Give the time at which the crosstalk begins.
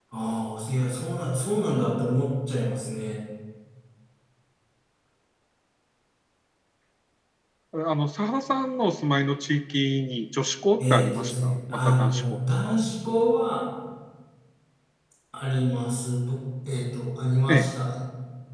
11 s

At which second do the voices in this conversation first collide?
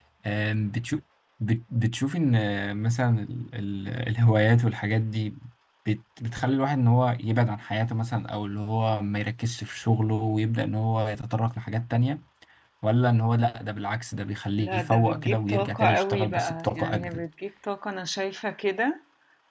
15 s

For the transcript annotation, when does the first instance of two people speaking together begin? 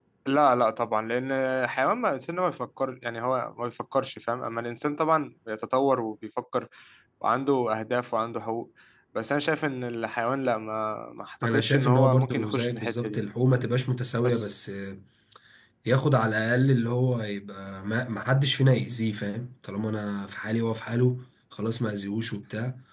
11 s

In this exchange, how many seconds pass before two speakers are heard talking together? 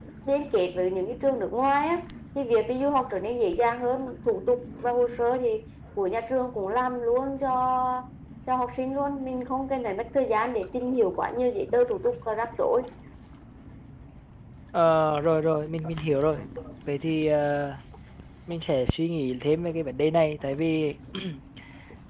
none

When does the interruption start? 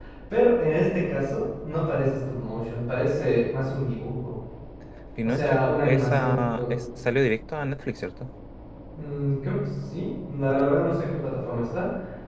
5 s

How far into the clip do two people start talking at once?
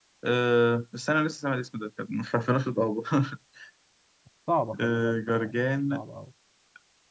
5 s

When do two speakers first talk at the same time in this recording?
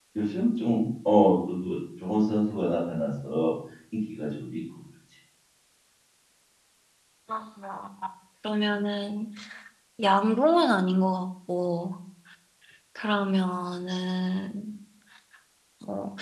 none

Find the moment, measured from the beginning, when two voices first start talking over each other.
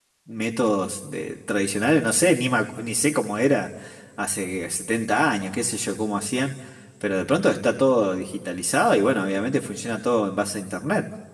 none

